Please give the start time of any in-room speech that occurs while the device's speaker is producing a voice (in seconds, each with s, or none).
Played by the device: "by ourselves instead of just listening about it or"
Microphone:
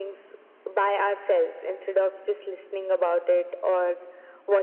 none